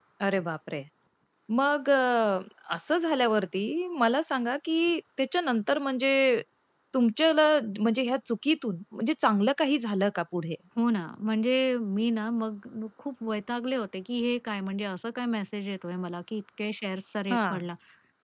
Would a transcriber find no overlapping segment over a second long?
Yes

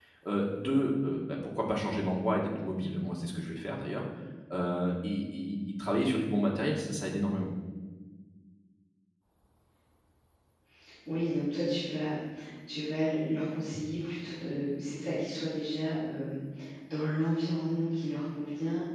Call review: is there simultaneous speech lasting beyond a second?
No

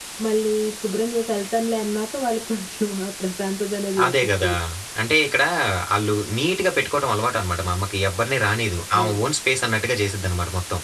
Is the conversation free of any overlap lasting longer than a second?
Yes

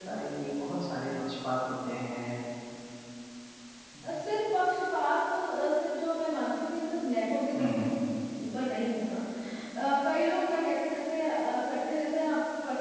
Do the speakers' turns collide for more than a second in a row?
No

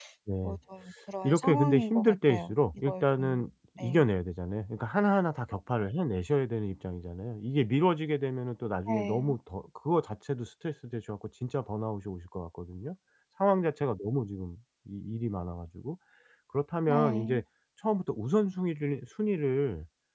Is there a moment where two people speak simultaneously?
Yes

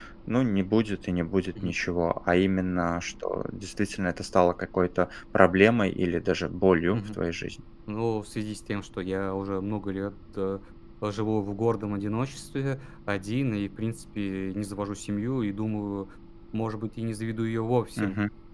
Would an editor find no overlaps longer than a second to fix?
Yes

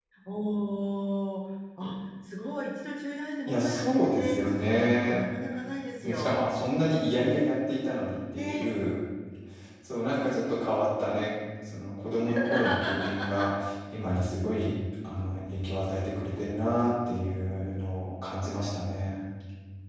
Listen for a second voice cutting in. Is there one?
Yes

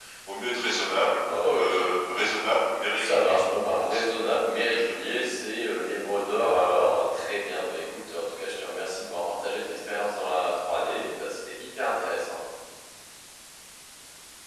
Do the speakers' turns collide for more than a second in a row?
Yes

